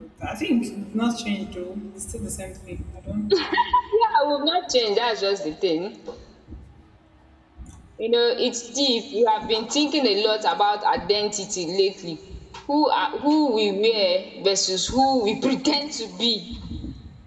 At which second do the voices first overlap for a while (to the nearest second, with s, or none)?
none